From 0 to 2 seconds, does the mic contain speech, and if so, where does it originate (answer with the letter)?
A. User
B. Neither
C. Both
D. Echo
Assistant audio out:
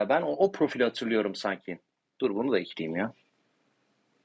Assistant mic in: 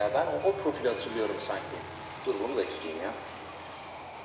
D